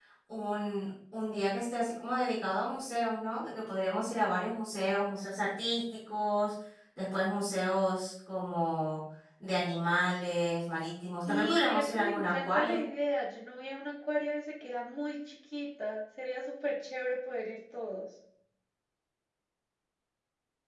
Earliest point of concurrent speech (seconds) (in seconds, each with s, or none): 11.3 s